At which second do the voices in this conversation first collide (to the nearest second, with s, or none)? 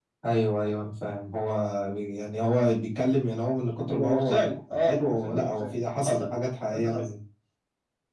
4 s